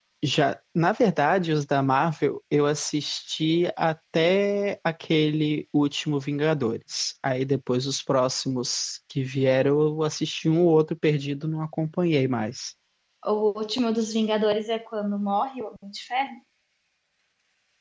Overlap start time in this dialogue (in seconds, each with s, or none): none